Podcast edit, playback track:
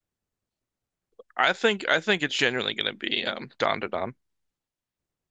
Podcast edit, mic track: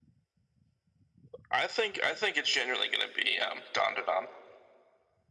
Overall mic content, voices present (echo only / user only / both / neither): echo only